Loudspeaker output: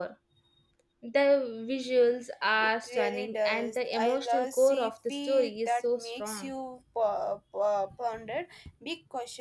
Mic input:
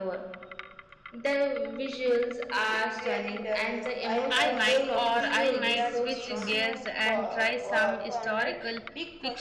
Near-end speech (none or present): present